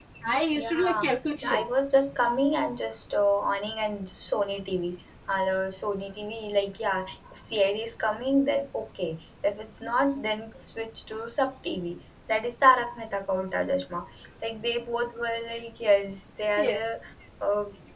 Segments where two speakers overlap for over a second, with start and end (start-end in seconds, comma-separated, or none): none